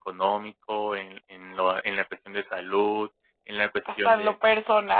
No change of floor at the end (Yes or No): No